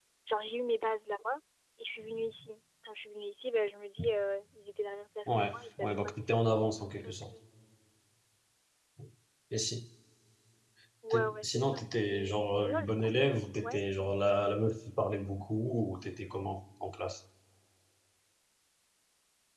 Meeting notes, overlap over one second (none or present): present